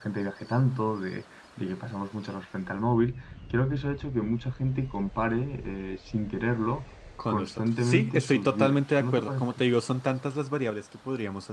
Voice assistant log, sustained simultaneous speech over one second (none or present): present